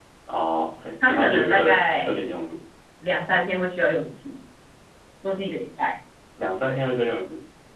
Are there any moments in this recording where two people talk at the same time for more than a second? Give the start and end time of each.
1.0-2.2

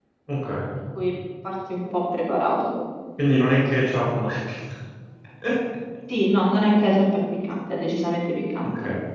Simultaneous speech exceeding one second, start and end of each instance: none

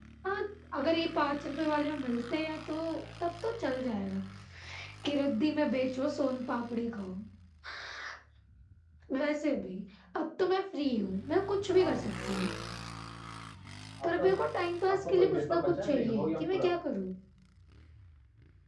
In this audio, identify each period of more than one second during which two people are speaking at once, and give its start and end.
14.9-16.7

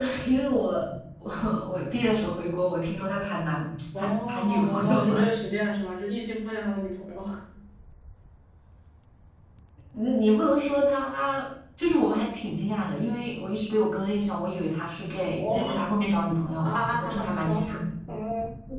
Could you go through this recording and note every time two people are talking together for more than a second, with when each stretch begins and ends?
4.0-5.2, 16.6-17.8

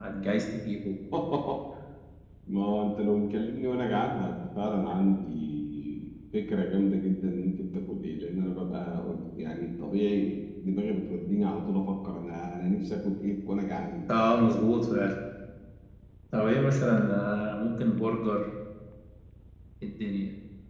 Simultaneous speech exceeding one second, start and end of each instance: none

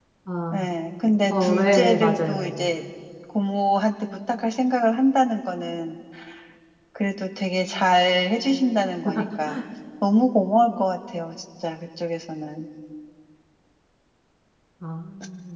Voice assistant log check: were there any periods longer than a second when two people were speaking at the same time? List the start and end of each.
1.3-2.7

